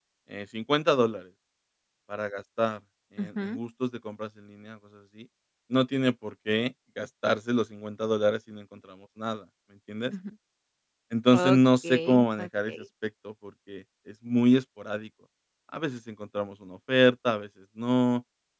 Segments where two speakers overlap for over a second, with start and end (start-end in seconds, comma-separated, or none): 11.3-12.7